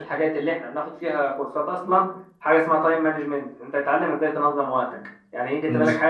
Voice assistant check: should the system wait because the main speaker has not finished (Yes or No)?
Yes